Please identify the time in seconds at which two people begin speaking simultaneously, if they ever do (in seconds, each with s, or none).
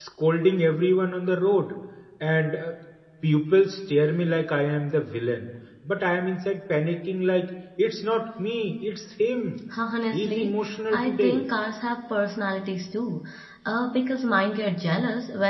10.1 s